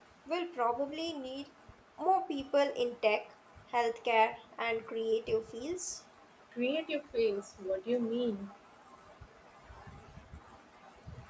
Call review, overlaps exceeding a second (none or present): none